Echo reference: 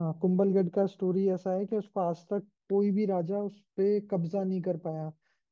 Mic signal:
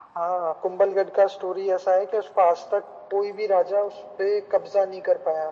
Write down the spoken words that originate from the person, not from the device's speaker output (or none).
none